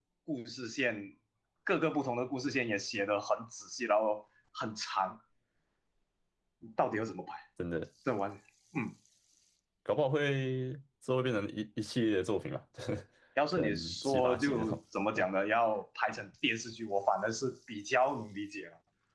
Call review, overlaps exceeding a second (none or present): present